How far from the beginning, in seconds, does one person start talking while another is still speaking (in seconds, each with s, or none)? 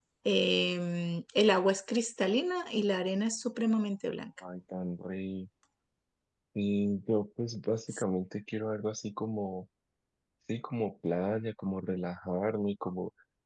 none